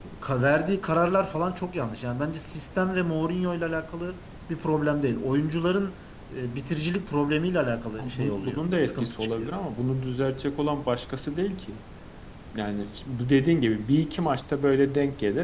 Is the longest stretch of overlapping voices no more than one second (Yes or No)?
No